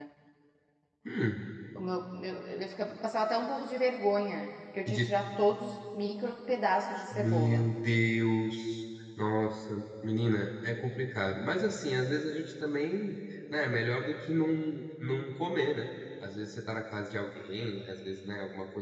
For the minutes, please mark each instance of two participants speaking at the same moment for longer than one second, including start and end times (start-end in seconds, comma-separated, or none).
none